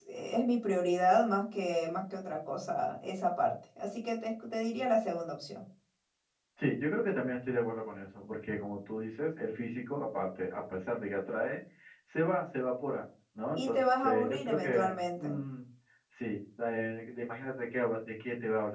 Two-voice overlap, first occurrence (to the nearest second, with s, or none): 14 s